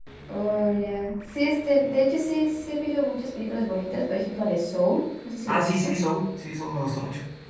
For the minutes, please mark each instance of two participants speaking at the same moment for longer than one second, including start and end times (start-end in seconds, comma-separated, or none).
none